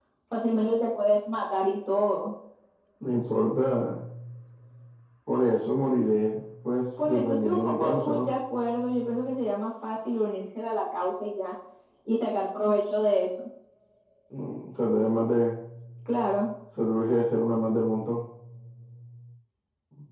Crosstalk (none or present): present